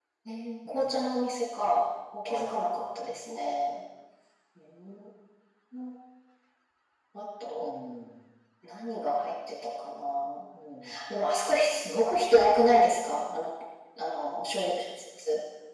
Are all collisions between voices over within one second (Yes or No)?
Yes